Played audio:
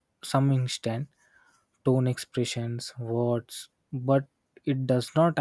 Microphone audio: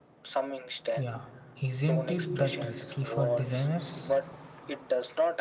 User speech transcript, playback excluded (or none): Yeah, isn't it that risky for designers?